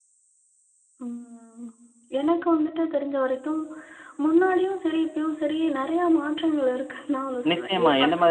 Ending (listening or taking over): taking over